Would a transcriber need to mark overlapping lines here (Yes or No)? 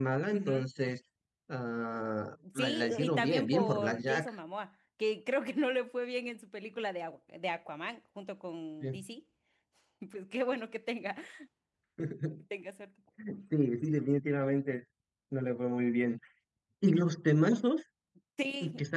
Yes